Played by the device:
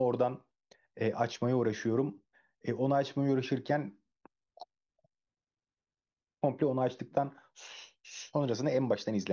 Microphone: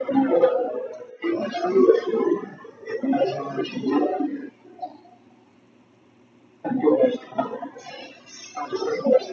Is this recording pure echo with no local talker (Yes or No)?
Yes